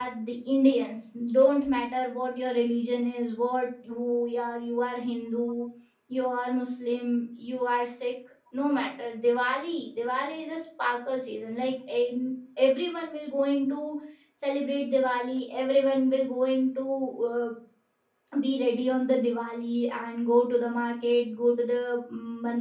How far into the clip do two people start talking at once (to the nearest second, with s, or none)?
none